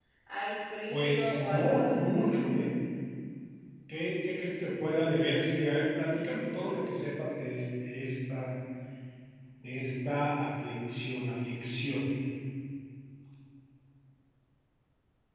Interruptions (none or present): present